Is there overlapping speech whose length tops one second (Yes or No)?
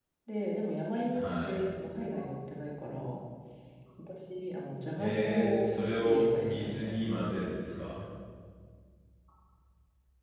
Yes